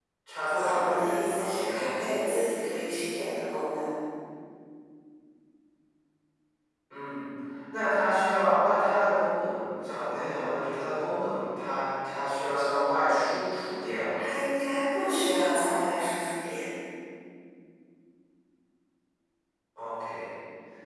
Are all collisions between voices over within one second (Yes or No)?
No